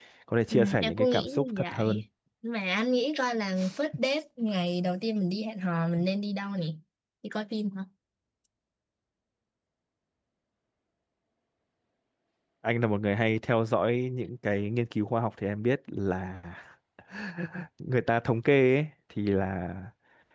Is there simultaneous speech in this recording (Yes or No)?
Yes